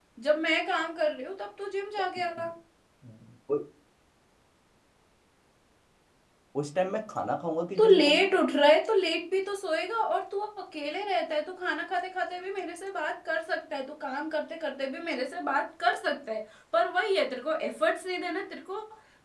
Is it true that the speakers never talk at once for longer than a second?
Yes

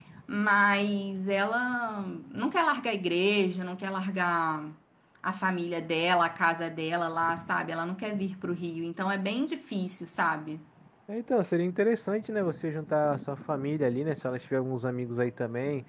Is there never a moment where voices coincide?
Yes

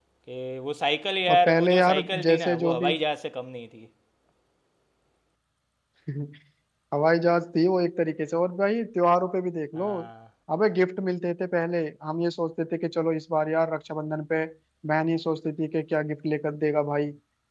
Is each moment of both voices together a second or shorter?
No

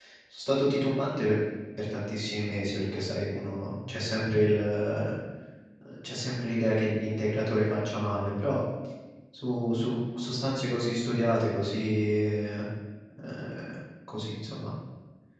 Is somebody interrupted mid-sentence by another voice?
No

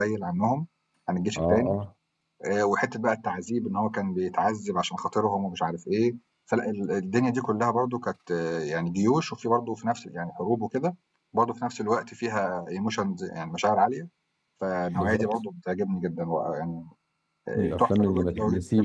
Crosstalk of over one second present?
Yes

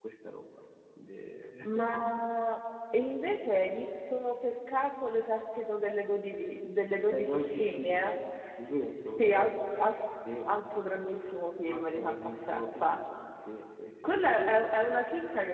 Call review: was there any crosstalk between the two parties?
Yes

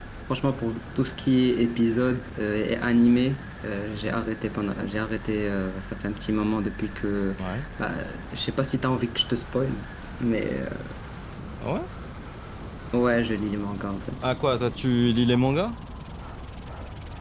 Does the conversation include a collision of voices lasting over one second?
No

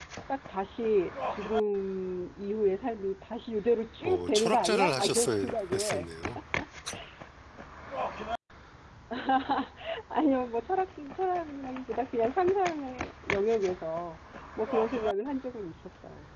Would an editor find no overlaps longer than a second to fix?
No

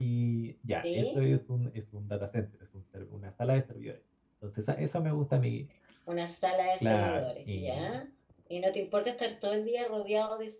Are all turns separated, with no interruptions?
No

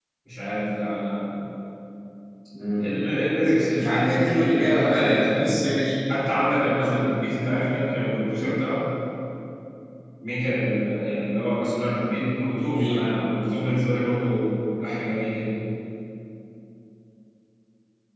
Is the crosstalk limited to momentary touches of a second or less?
No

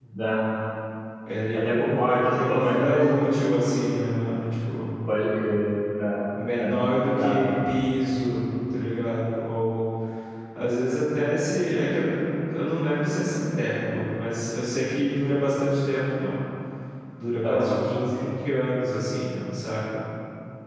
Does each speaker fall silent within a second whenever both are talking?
No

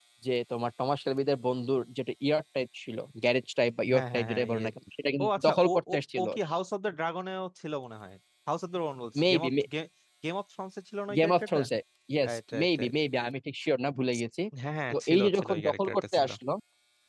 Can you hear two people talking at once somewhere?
Yes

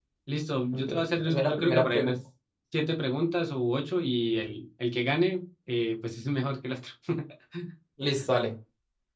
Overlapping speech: Yes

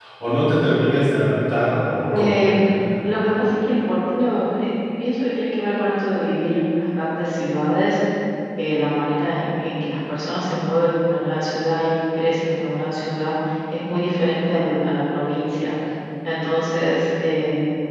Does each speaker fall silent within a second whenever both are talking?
Yes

